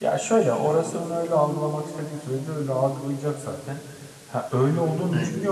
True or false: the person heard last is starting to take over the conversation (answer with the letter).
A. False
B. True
A